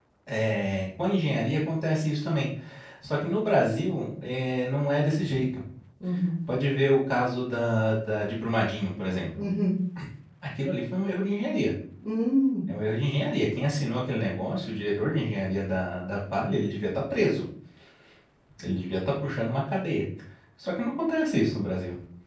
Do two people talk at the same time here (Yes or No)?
No